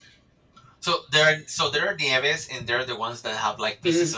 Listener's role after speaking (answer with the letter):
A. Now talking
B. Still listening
A